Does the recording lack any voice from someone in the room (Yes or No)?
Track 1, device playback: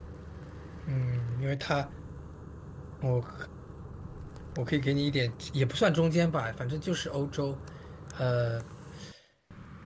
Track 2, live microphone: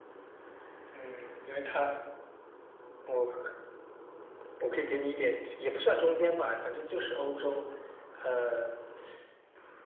Yes